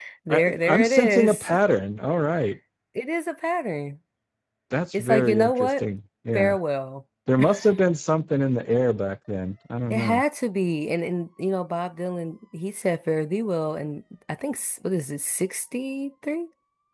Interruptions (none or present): present